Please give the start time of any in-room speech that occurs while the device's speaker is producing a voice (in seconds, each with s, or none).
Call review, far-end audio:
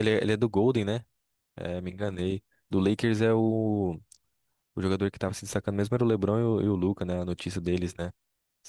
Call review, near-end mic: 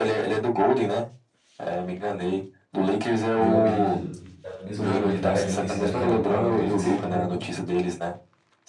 3.4 s